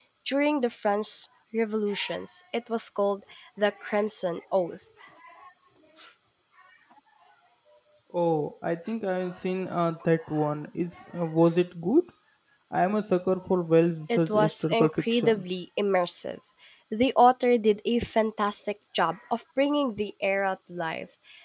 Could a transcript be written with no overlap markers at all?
No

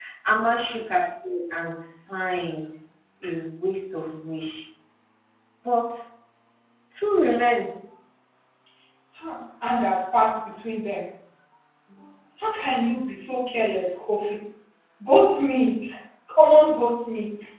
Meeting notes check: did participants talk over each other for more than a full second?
No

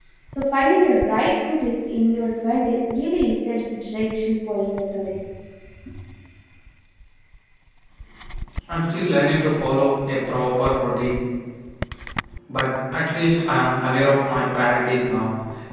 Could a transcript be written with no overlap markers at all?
Yes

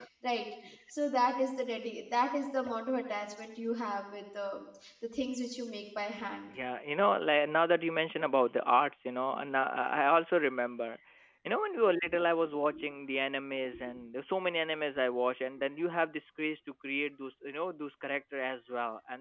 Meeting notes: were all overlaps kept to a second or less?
Yes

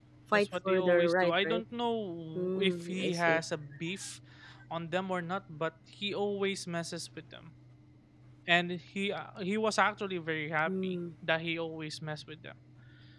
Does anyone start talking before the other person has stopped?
Yes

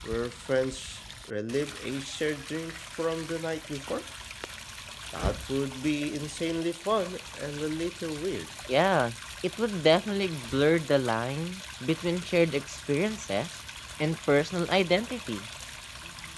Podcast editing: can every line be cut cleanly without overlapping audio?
Yes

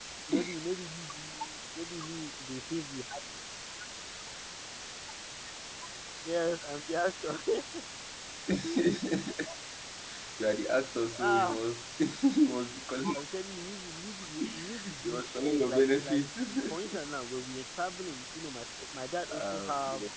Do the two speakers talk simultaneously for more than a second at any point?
Yes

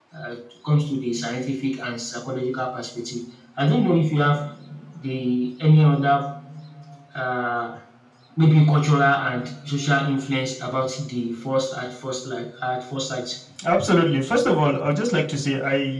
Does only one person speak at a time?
Yes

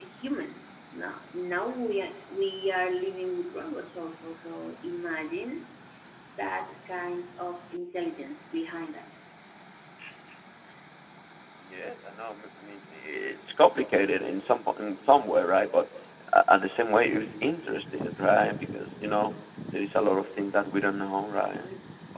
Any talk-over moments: No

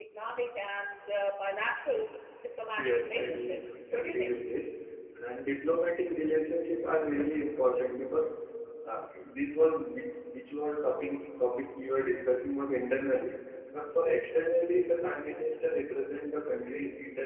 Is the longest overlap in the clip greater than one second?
Yes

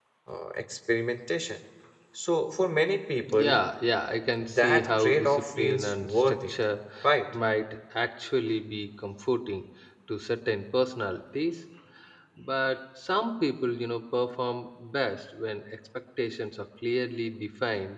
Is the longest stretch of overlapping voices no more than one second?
No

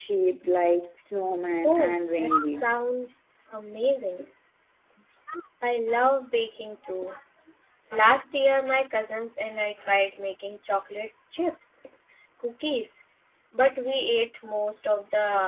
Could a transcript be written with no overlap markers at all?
No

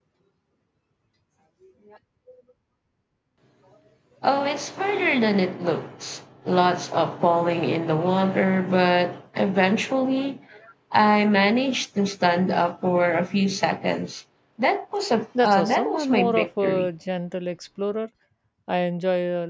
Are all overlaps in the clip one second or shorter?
No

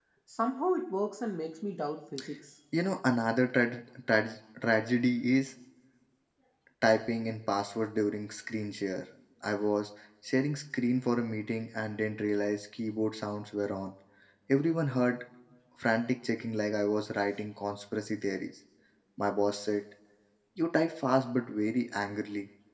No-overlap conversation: Yes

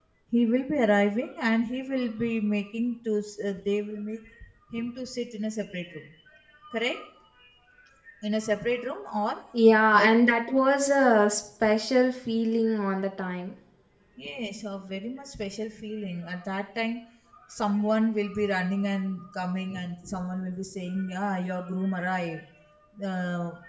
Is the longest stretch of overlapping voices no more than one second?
Yes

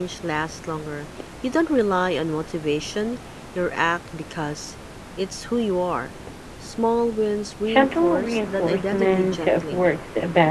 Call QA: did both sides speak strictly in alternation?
No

